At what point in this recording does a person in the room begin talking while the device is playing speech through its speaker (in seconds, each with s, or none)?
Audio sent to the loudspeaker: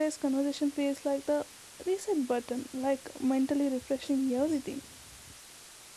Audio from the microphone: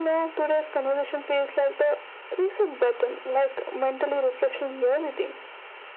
none